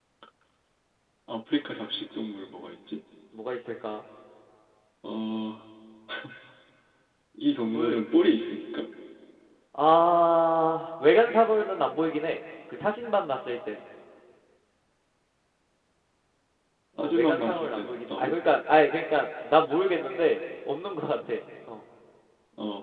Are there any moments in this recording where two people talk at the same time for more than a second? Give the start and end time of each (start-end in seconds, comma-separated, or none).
17.0-18.3